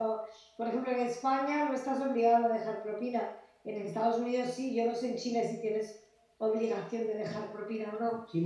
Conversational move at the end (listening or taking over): taking over